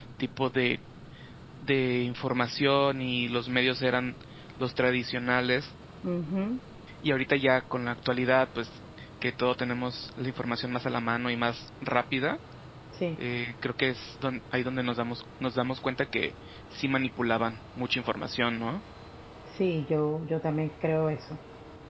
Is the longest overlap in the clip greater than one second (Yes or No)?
No